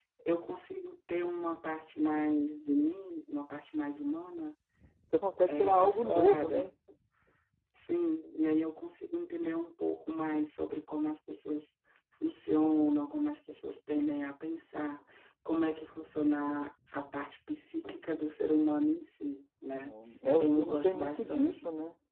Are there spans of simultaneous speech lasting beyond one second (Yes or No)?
Yes